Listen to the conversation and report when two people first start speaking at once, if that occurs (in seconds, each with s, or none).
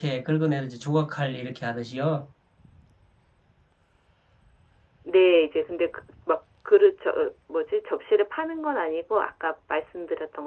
none